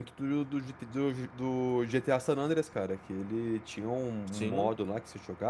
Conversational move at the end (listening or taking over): listening